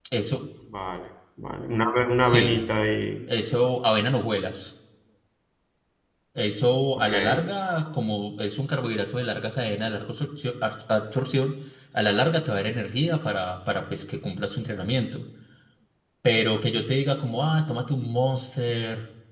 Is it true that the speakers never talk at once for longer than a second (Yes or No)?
Yes